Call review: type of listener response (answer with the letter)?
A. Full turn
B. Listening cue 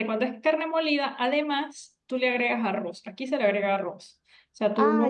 B